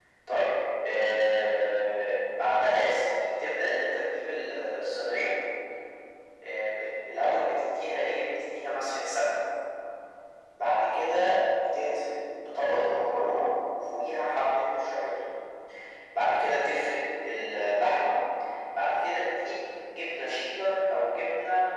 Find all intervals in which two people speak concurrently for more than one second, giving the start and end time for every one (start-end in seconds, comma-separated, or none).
none